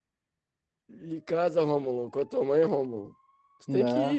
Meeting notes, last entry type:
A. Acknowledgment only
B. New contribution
A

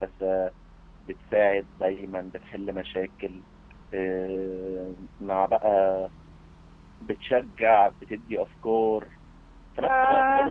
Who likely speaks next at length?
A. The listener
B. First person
B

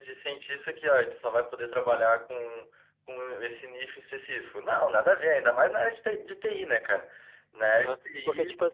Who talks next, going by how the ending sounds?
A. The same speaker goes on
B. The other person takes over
B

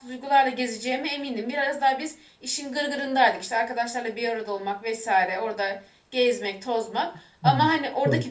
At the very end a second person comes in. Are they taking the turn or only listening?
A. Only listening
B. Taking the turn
A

